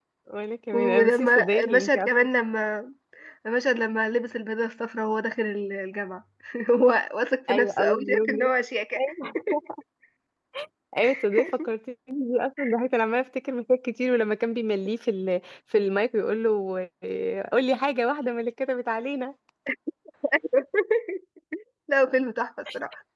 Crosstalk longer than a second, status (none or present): present